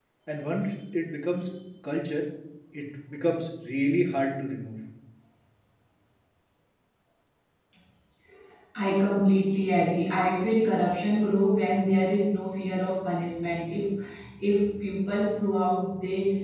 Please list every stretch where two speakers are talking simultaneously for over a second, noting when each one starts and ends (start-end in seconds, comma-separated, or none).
none